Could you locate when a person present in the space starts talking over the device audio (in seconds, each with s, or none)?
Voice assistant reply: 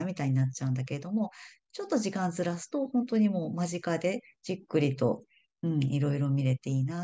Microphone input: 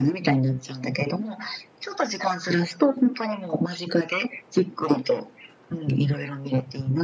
none